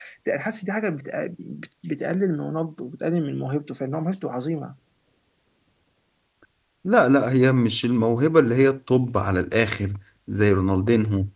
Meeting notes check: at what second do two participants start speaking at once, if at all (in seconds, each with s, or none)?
none